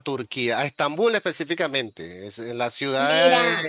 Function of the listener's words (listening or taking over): listening